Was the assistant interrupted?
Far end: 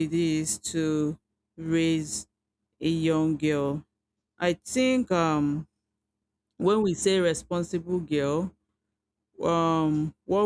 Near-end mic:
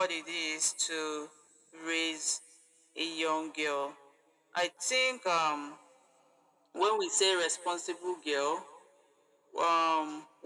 No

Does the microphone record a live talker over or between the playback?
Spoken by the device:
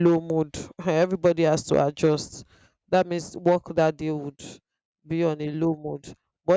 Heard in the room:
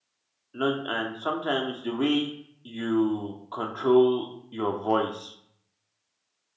Yes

